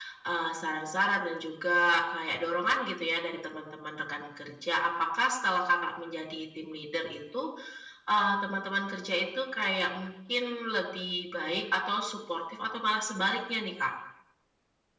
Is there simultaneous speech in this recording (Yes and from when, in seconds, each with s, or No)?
No